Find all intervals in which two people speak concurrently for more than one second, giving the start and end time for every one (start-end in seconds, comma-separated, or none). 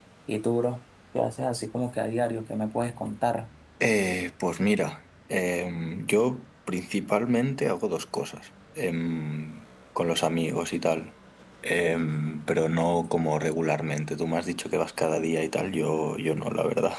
none